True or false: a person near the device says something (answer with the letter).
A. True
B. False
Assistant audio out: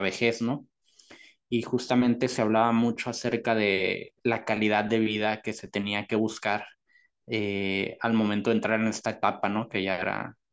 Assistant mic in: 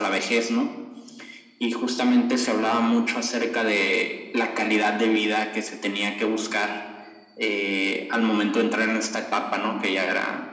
B